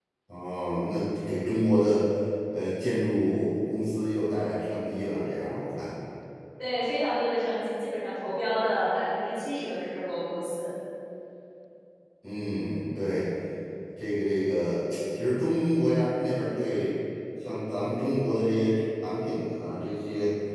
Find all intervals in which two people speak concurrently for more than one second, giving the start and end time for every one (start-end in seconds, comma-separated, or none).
none